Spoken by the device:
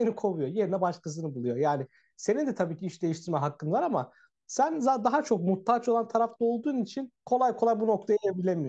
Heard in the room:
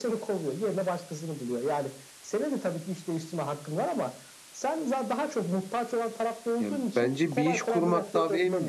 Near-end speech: present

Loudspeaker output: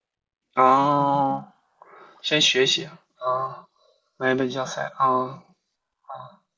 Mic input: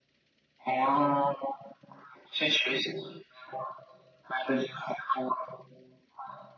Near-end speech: none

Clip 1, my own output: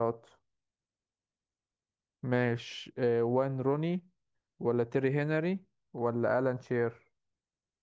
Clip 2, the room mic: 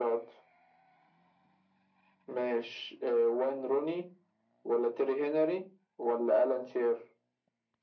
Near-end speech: none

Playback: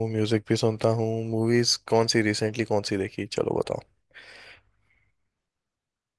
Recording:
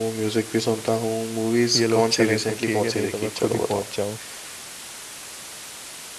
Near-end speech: present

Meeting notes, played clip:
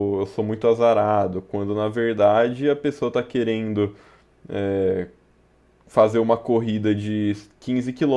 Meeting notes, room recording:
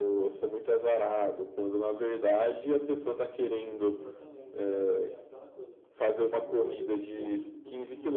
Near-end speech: present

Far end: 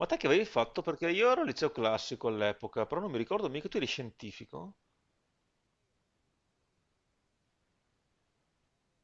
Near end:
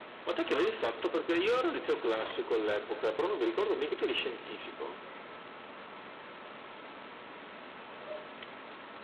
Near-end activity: none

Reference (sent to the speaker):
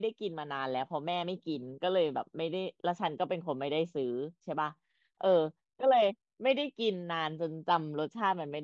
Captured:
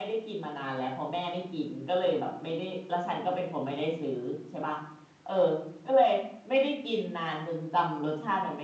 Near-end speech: none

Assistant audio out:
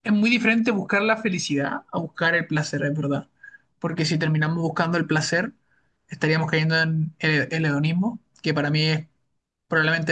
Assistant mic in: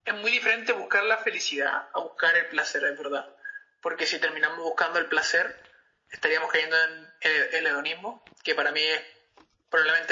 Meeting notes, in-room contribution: none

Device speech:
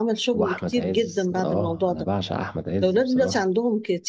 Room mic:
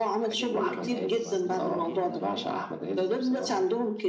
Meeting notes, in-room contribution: present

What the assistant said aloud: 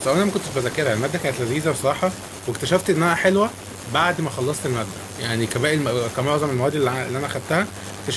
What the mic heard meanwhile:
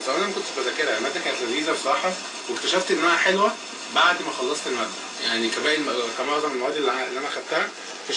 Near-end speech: none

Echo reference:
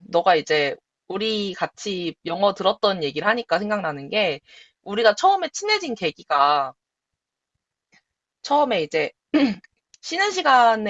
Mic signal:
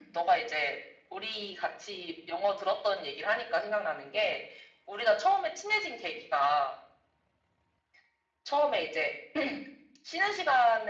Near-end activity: none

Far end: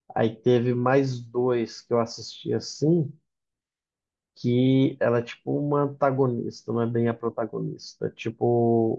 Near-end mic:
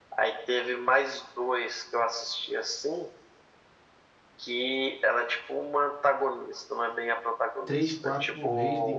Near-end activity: present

